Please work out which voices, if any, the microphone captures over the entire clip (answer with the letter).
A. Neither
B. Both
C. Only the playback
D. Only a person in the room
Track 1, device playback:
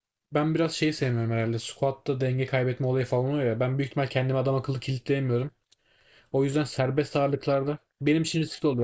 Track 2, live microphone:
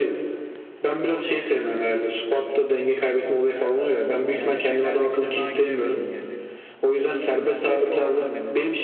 B